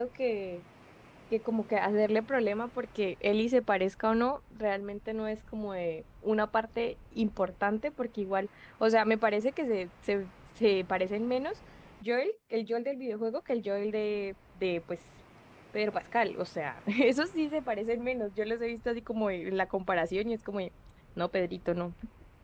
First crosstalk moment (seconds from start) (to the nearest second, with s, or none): none